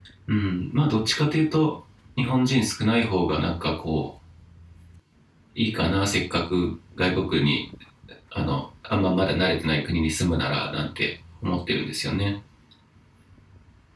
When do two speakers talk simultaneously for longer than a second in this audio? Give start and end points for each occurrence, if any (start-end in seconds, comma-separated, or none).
none